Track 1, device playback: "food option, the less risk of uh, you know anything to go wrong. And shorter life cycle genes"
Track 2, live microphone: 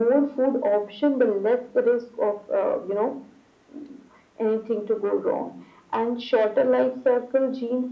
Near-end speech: none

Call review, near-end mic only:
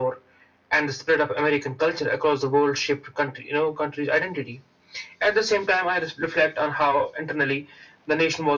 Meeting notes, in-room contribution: none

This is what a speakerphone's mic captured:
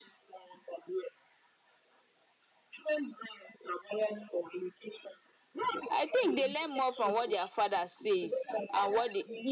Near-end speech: present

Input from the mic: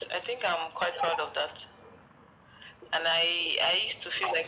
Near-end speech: none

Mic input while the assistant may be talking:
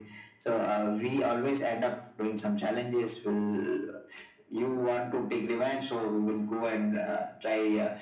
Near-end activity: none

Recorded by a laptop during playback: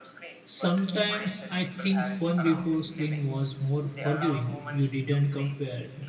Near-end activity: present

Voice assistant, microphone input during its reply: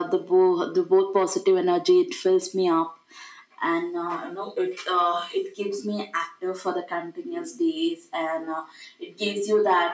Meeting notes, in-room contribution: none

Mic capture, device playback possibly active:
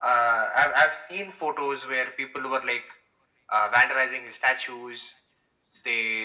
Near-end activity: none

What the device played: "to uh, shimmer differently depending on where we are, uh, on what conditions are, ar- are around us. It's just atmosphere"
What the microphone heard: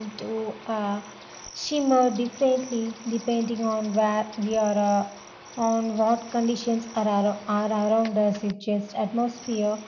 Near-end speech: none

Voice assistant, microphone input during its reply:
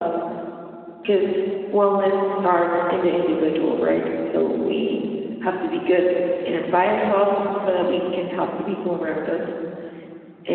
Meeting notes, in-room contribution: none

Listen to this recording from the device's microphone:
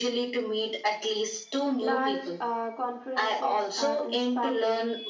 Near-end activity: present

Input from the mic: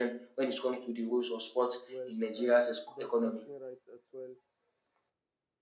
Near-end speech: present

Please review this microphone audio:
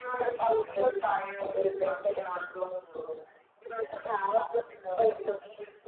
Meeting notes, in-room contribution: none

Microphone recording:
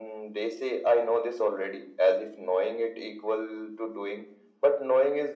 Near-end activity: none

